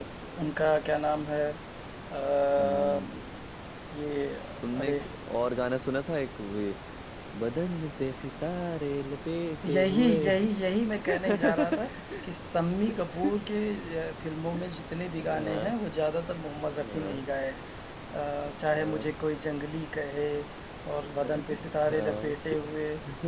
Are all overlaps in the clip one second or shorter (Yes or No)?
No